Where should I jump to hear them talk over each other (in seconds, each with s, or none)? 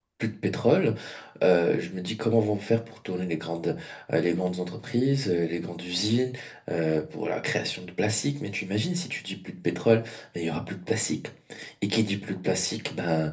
none